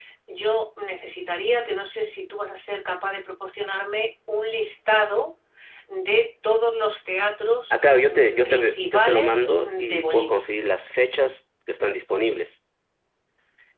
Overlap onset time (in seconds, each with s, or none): 7.7 s